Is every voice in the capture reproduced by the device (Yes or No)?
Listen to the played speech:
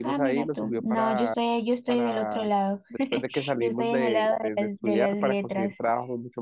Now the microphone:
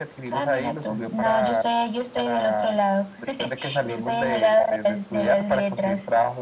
Yes